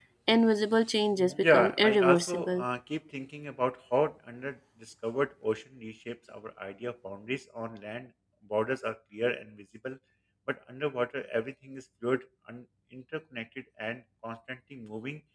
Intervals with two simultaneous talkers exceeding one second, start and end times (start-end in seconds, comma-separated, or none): 1.4-2.6